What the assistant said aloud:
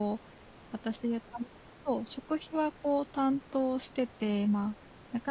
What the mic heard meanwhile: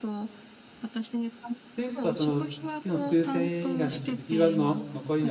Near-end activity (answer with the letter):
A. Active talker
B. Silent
A